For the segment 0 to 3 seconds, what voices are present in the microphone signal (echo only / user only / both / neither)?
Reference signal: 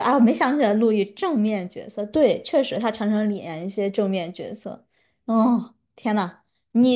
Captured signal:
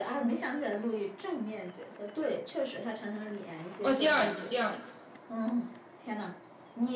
echo only